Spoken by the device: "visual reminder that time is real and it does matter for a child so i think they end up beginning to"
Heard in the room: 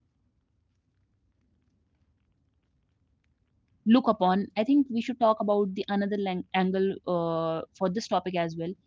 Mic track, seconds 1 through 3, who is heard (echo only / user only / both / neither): neither